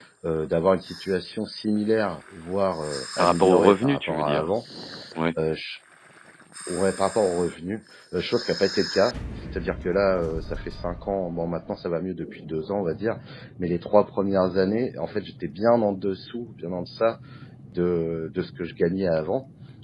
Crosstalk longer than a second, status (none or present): present